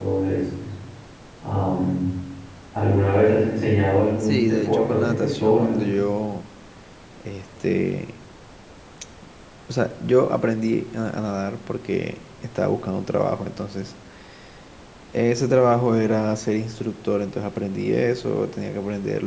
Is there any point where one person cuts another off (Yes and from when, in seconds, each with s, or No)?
Yes, from 4.2 s